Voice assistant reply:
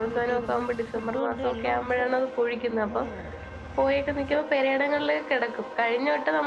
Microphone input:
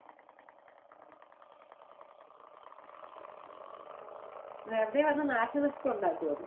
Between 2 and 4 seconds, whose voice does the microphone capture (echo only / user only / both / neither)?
neither